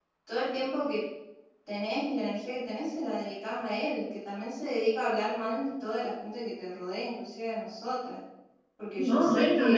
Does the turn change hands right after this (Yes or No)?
Yes